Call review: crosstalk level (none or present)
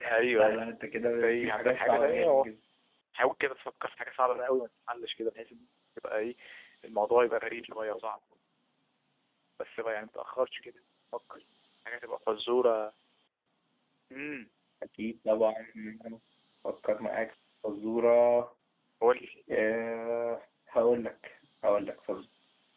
present